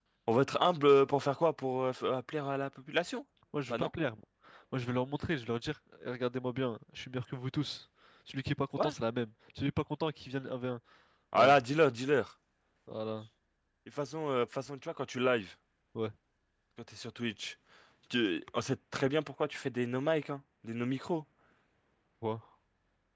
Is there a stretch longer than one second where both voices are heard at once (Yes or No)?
No